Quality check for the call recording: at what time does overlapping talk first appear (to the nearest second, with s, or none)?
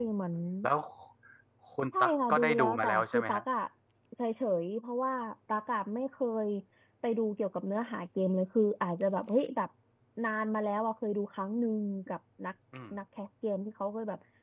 2 s